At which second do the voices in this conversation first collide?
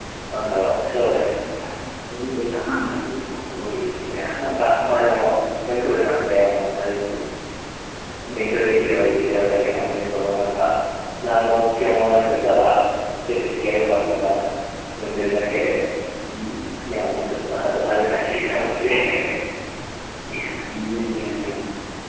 none

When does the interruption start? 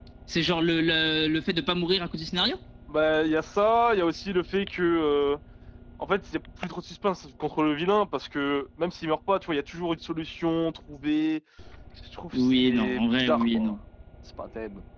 12 s

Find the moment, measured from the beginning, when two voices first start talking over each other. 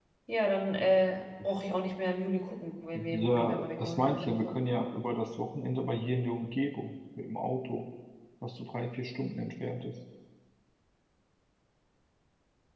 3 s

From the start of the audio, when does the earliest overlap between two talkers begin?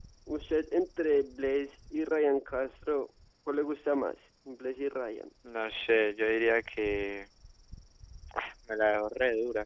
none

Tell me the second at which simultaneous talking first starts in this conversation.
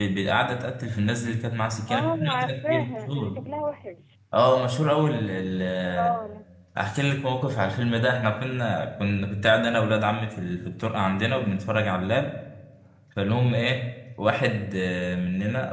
2 s

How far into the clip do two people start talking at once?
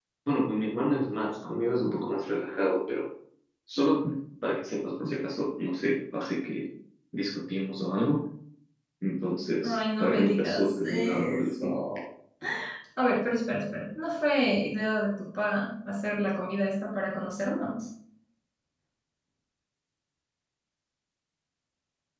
10 s

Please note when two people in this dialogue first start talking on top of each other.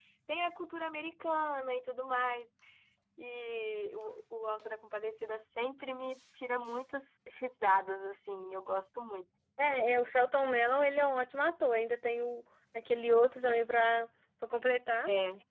none

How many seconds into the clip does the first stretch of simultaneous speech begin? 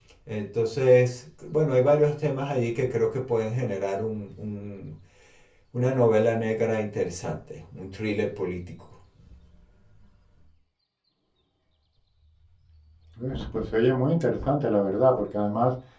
none

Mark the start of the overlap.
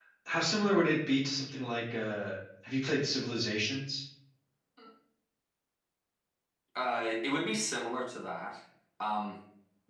none

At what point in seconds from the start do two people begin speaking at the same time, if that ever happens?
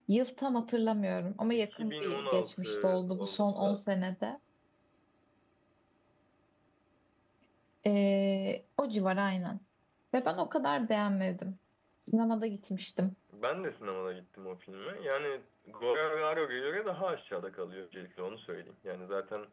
1 s

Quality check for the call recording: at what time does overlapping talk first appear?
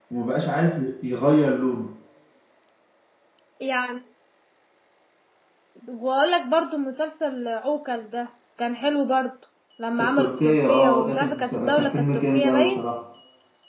10 s

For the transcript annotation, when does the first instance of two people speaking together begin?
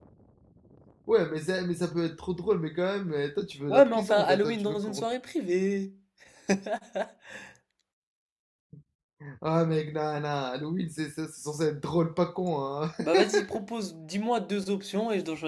4 s

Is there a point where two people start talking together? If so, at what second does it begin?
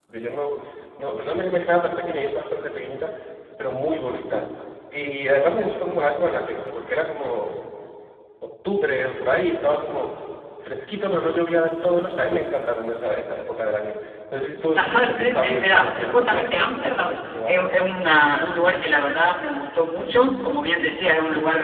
15 s

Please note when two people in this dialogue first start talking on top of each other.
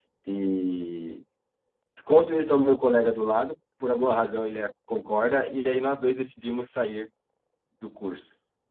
none

